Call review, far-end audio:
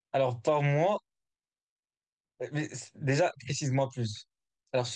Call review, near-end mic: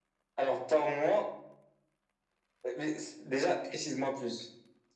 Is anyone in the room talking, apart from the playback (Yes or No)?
No